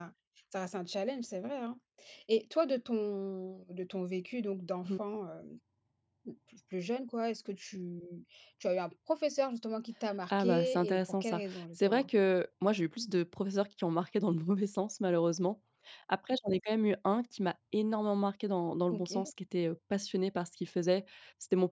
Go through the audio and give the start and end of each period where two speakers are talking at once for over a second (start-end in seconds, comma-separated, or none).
10.3-12.1